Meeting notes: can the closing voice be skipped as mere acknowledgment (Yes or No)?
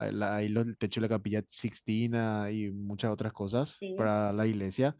Yes